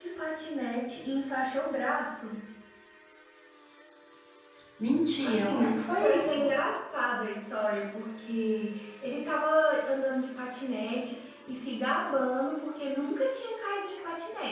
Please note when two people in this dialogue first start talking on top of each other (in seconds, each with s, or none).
5.2 s